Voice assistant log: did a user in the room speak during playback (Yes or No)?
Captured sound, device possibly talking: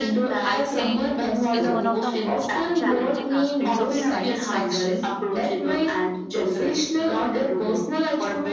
Yes